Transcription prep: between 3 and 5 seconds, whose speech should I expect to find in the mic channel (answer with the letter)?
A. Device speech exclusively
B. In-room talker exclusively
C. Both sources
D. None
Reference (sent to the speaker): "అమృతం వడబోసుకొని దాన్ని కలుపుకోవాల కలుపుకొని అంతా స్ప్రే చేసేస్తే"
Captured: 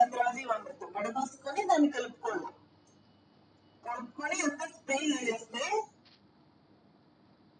A